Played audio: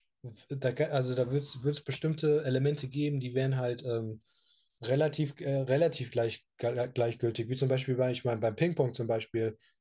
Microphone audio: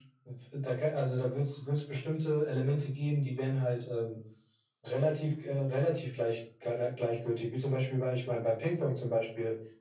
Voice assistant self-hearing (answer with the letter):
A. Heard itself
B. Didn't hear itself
A